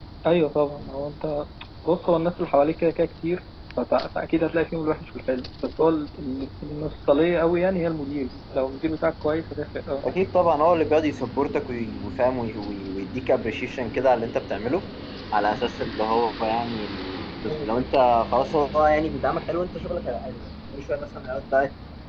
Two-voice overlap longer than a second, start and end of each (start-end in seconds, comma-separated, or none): none